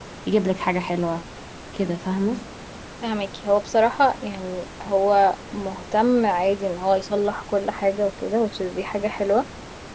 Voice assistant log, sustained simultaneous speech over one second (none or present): none